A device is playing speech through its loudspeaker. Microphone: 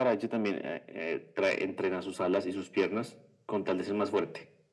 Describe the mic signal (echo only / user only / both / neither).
echo only